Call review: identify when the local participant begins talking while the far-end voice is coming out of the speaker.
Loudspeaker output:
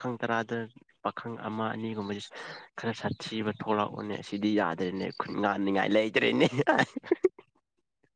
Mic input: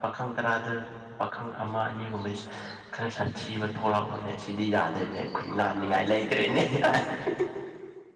none

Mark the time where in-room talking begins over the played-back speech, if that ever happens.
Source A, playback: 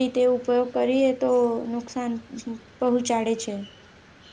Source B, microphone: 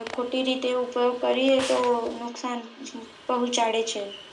none

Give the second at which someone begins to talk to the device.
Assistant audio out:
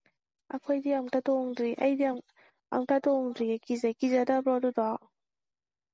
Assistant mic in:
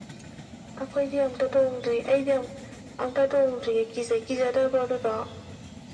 none

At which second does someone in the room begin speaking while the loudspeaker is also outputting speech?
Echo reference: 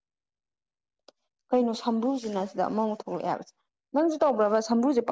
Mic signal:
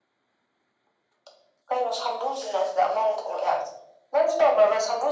none

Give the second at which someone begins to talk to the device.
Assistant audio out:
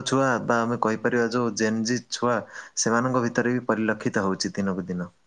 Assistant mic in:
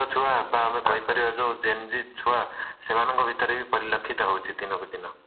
0.9 s

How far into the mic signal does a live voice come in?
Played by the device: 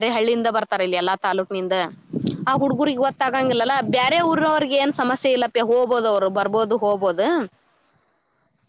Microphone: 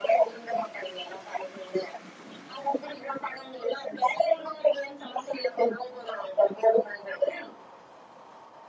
none

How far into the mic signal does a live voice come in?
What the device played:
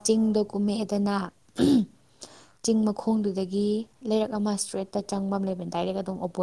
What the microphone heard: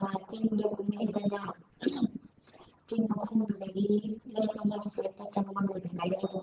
none

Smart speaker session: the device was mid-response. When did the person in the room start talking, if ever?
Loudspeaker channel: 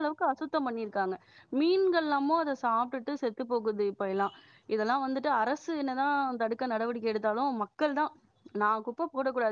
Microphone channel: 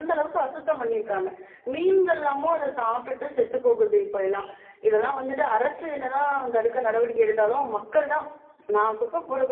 none

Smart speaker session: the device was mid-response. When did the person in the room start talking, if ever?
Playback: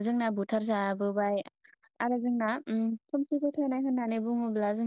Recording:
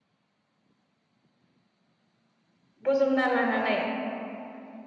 2.9 s

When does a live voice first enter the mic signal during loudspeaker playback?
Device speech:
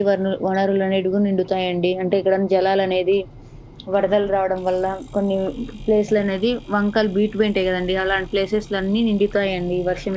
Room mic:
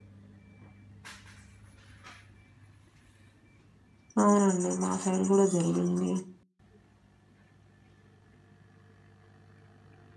4.2 s

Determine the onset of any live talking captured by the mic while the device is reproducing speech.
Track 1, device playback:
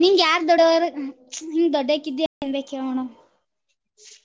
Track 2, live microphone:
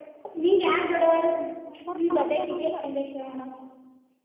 1.6 s

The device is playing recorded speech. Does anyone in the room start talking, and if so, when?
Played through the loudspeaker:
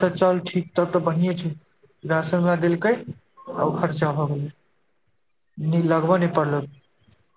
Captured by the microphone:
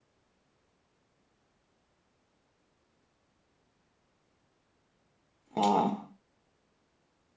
5.6 s

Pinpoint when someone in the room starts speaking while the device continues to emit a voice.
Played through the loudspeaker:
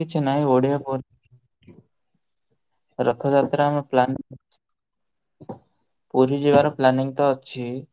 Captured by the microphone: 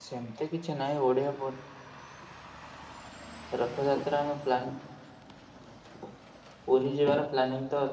none

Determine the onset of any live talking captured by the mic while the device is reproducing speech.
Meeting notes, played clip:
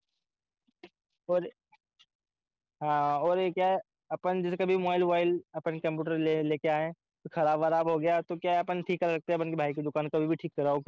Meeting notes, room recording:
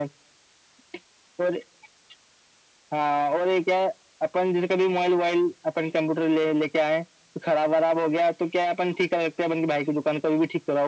none

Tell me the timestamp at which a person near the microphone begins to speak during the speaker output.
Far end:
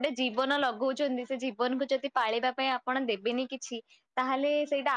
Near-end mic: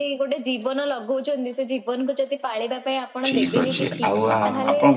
3.3 s

